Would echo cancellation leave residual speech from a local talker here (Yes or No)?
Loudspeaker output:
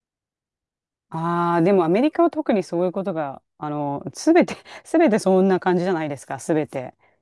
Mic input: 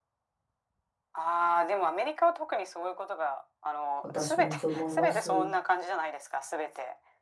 Yes